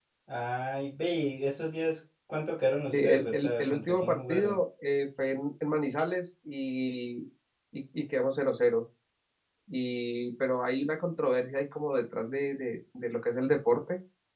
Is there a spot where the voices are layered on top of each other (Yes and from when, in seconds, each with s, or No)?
Yes, from 2.9 s